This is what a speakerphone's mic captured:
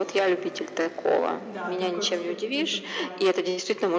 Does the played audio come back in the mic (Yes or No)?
Yes